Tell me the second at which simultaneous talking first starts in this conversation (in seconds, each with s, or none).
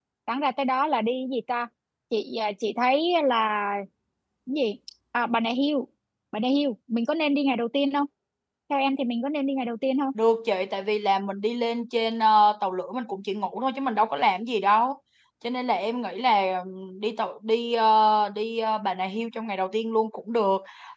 none